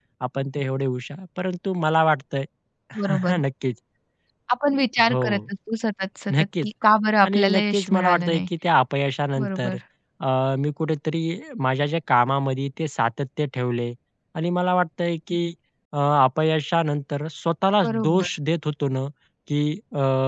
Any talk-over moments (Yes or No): Yes